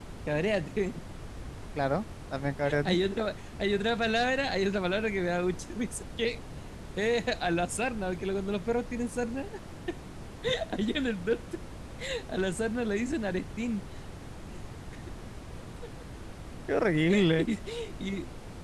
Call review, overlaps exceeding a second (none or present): none